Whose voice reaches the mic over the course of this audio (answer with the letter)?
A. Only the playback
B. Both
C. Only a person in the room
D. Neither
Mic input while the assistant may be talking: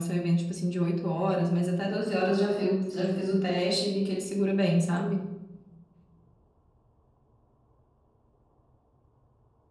A